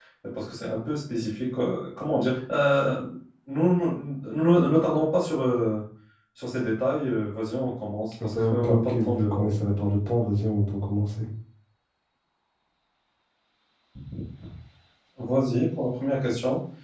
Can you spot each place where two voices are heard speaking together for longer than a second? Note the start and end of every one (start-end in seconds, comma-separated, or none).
8.2-9.6